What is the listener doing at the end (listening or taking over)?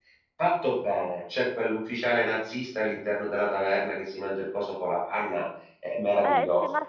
taking over